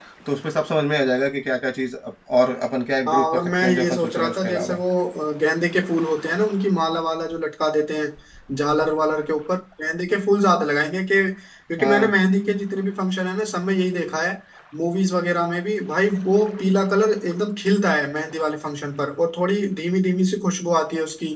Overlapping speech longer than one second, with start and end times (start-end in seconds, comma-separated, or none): 3.1-4.8